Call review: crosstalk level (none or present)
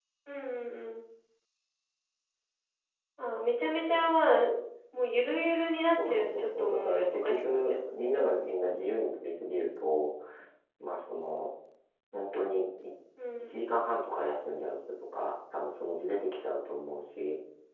present